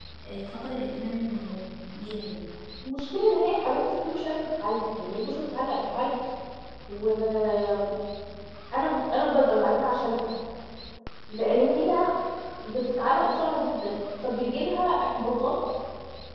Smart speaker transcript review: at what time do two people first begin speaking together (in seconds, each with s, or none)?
none